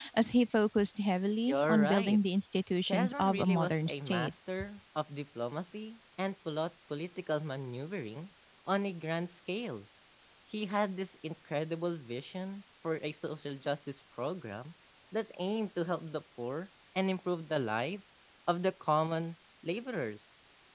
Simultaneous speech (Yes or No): Yes